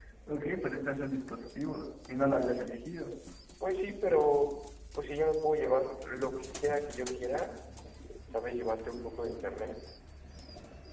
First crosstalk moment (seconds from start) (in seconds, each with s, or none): none